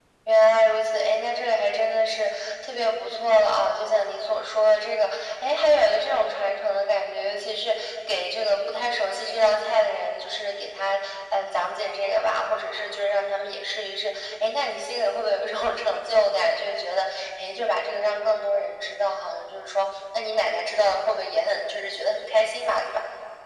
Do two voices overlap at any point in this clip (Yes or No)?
No